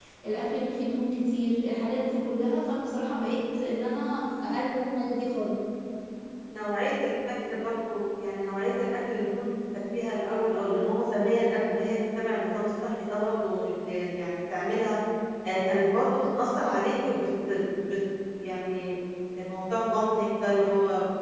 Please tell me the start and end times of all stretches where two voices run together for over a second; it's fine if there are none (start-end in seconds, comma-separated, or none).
none